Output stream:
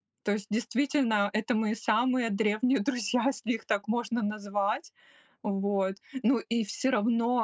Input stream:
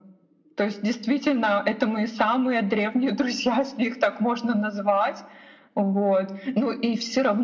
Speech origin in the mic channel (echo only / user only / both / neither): echo only